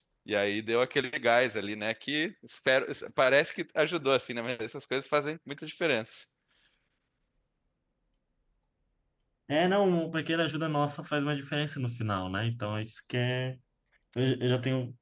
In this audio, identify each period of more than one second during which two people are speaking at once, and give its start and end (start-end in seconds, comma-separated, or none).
none